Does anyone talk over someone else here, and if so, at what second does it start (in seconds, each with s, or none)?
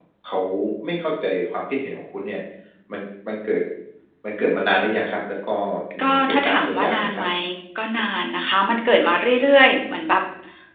6.0 s